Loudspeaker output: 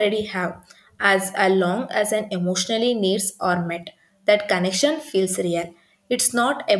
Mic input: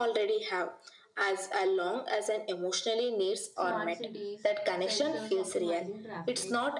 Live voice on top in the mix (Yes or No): No